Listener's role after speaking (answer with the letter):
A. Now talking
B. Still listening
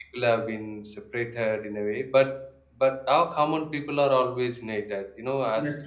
B